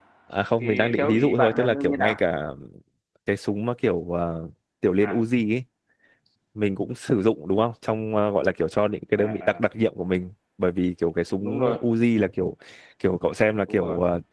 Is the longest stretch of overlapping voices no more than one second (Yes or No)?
No